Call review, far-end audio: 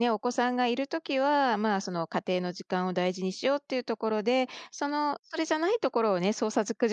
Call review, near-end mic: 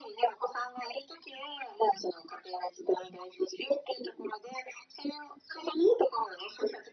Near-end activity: none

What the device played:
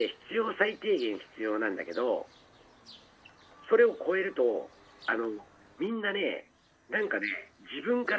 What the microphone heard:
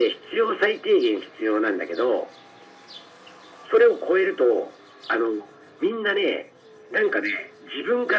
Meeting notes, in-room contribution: none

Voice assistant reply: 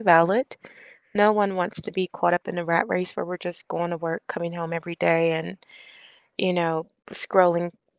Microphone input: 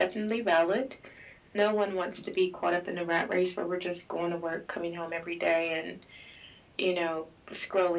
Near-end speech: none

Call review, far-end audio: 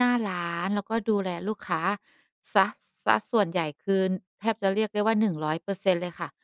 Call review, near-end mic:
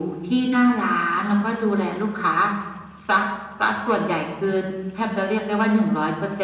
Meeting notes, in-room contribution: none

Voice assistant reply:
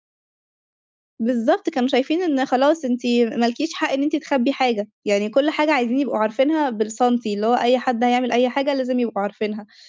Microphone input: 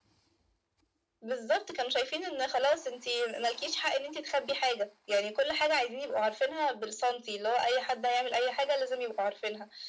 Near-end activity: none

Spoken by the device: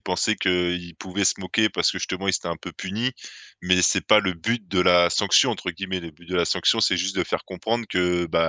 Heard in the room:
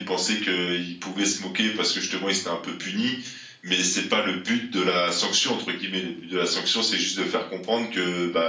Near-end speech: none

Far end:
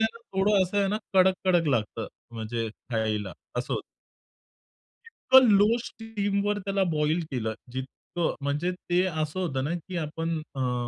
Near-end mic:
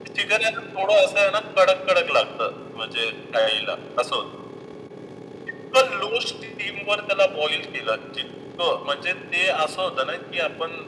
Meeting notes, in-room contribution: none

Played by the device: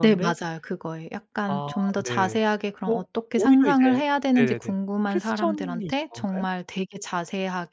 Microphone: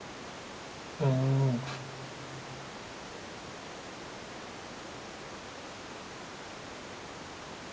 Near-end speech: present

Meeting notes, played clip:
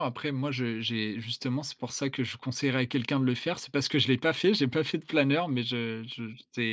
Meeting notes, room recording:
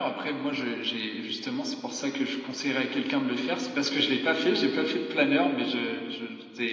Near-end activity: none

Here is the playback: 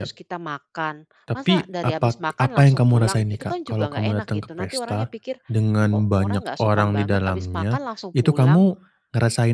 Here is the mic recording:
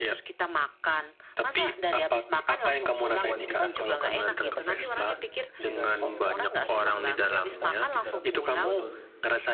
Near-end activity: present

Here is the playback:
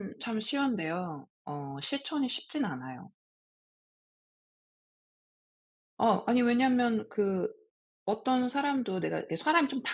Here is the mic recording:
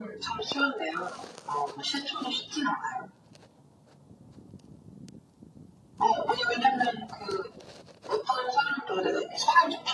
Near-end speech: none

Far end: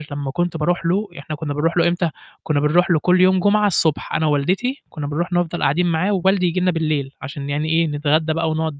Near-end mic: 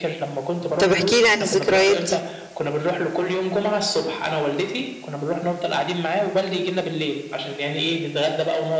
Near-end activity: present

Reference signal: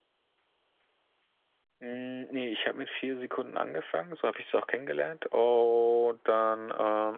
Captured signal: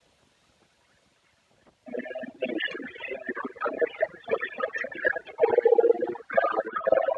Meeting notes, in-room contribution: none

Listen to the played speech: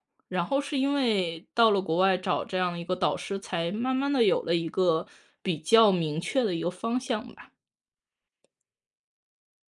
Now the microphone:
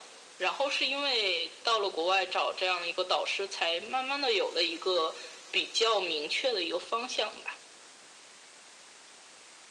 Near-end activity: none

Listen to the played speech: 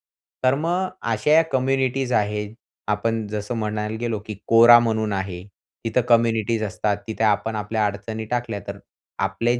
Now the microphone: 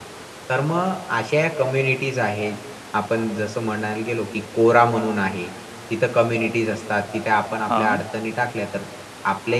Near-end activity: present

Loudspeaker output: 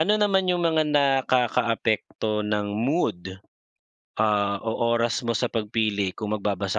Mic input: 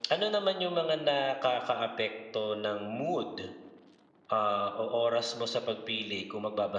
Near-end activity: none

